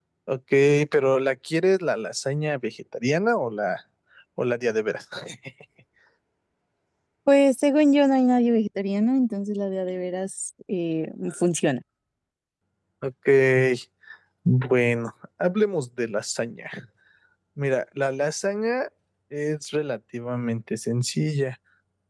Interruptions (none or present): none